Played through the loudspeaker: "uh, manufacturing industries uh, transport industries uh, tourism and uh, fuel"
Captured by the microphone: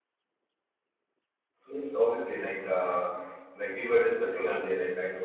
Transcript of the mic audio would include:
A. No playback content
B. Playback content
A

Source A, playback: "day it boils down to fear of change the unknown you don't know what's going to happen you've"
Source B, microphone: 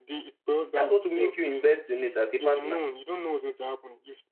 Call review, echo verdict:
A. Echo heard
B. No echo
A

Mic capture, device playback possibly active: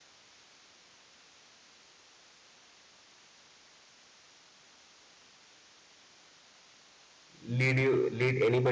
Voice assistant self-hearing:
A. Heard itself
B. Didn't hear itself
B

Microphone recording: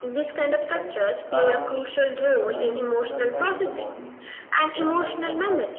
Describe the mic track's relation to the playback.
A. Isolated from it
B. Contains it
B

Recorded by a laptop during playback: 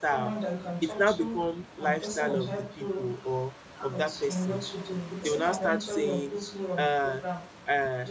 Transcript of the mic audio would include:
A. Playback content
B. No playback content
A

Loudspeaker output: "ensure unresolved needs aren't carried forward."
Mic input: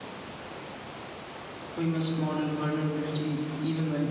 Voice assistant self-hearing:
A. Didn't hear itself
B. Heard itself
A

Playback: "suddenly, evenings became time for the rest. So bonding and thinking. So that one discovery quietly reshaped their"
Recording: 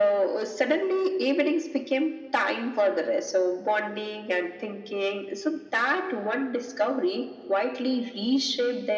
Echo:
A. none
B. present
B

